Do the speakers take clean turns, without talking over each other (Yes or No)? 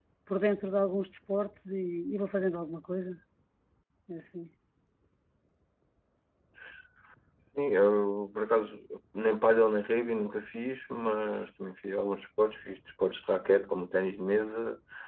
Yes